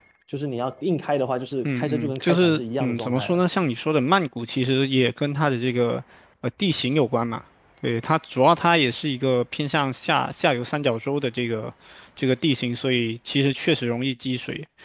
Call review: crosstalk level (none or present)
present